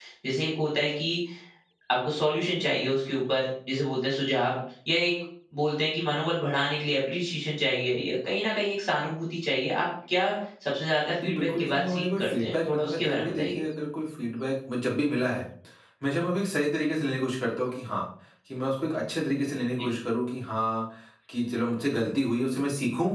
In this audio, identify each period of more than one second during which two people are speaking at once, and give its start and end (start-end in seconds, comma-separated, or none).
11.2-13.6